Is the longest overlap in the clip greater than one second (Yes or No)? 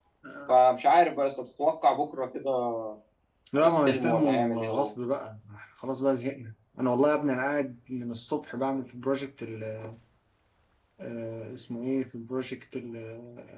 Yes